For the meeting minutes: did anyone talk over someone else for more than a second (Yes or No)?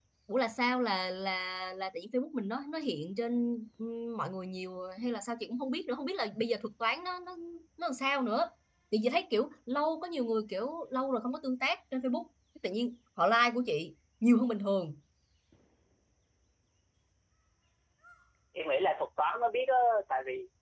No